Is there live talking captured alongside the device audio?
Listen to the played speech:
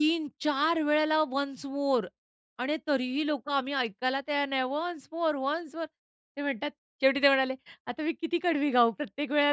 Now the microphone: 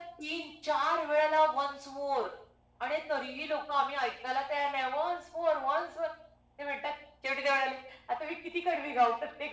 No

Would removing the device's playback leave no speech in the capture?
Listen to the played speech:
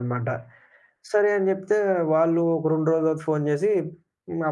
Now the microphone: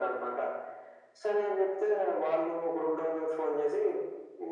Yes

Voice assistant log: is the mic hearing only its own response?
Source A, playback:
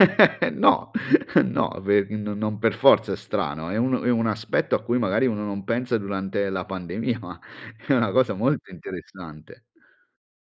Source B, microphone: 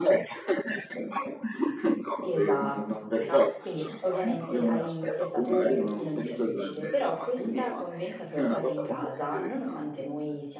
No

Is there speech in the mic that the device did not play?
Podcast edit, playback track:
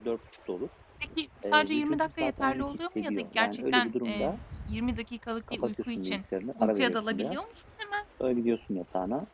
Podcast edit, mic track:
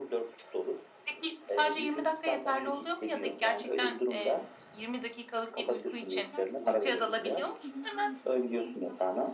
Yes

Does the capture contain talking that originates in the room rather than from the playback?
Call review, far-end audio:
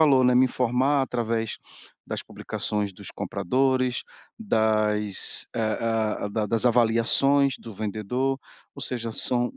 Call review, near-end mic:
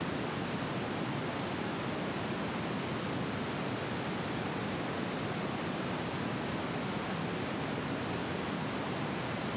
No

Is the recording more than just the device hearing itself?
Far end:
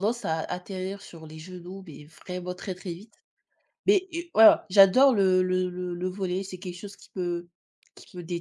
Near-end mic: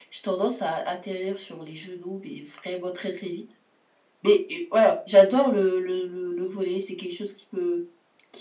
No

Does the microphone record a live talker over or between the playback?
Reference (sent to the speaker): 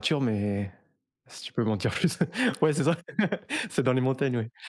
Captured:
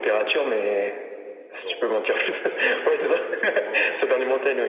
Yes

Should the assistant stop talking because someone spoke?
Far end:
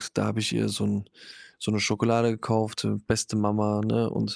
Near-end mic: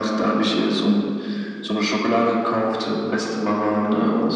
No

